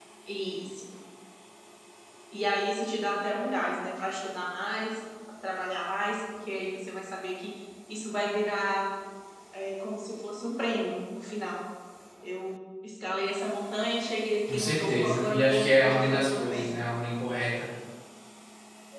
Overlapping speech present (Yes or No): Yes